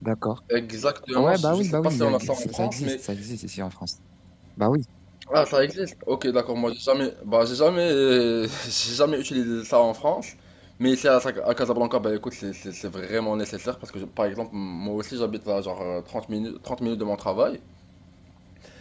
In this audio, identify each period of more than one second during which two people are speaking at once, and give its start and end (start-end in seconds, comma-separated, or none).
1.2-2.9